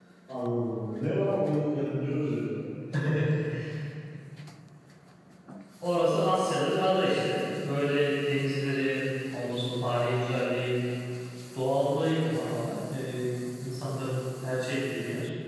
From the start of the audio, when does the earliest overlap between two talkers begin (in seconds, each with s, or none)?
none